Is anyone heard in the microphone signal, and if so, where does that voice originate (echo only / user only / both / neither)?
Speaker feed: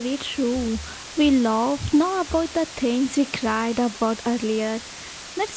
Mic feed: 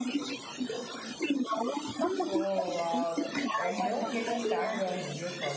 both